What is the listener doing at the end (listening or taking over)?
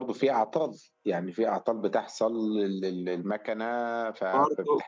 taking over